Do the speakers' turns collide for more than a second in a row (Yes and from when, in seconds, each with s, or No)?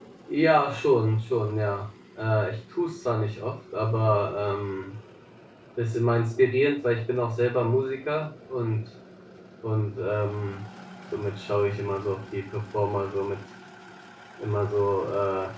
No